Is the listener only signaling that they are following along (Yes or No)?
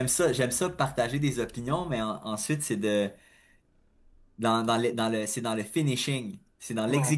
Yes